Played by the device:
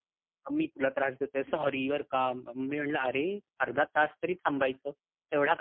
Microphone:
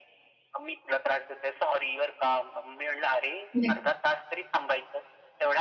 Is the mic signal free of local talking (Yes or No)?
No